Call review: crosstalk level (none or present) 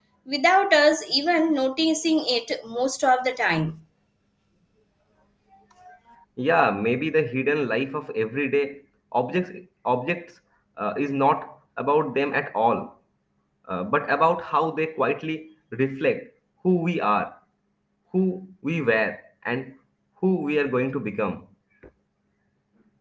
none